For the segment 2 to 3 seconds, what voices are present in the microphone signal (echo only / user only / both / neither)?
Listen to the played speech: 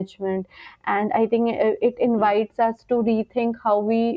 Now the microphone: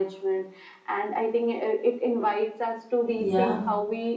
echo only